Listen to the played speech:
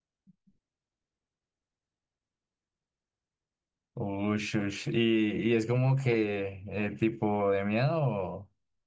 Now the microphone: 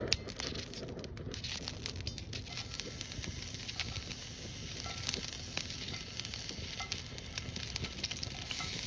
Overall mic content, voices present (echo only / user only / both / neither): neither